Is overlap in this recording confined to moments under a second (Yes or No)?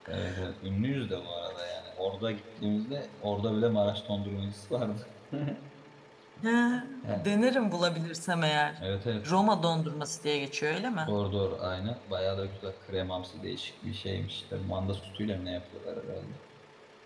Yes